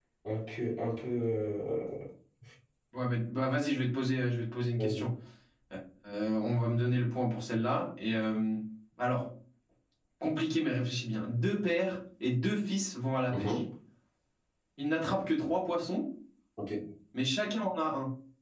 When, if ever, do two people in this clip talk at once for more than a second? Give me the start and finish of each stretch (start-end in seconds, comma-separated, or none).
none